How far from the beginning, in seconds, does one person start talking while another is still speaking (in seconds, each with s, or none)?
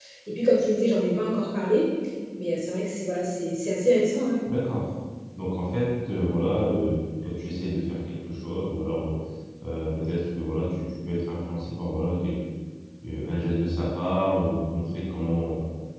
none